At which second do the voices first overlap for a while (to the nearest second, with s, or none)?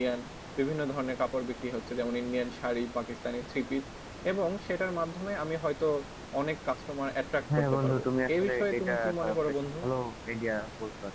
7 s